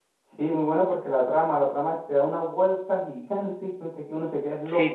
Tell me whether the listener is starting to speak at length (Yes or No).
Yes